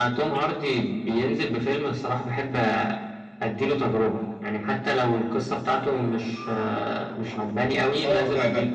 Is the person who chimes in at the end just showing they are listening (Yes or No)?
No